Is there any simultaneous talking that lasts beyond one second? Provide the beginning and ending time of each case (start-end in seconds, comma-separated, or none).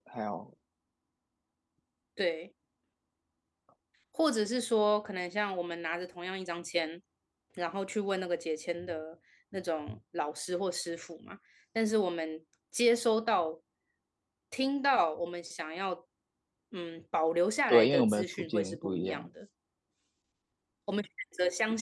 17.7-19.3